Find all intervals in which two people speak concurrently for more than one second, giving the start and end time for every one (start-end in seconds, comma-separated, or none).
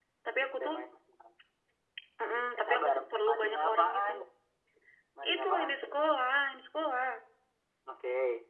2.6-4.1